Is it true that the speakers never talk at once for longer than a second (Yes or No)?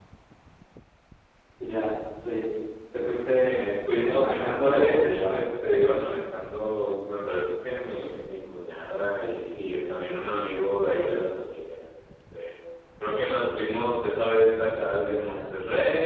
No